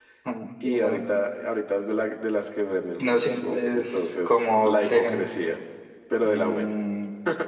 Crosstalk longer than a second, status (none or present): present